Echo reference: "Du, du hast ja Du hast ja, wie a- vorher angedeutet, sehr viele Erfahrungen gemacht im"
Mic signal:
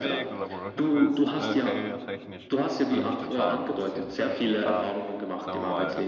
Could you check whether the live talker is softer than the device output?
Yes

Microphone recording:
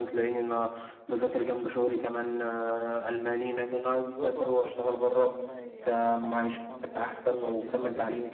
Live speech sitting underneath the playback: Yes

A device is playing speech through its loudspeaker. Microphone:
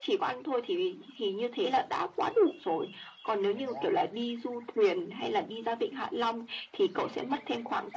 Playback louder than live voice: Yes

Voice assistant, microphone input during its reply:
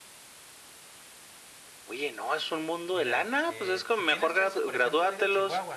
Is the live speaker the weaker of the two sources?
Yes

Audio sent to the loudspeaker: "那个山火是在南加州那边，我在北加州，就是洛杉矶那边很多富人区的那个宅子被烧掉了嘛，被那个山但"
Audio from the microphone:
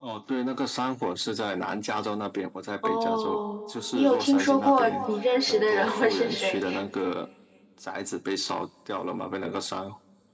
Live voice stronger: Yes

